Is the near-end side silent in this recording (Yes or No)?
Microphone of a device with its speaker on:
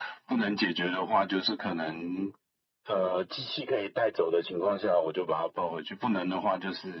Yes